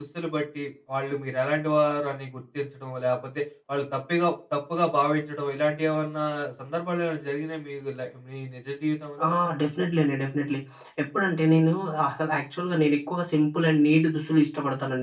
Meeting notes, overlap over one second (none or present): none